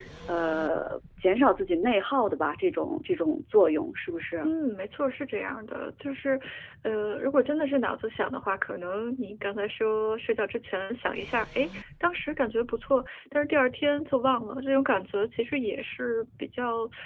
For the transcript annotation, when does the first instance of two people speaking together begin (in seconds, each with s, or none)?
none